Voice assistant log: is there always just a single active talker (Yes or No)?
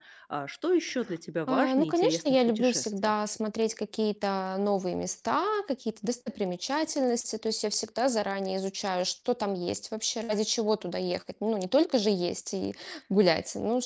No